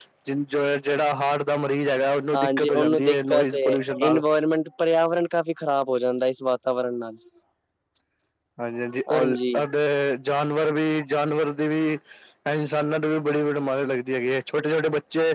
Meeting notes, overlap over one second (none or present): present